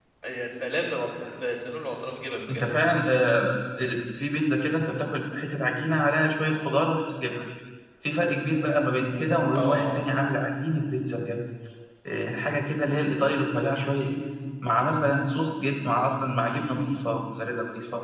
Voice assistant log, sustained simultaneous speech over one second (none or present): none